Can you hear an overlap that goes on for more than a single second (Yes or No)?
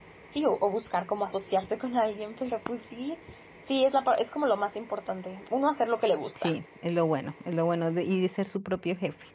No